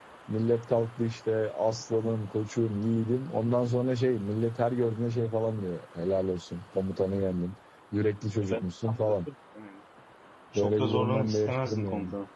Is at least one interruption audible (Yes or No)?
Yes